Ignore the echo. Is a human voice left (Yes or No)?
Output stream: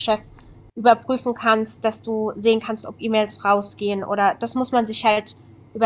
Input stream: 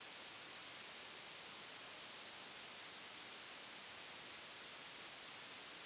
No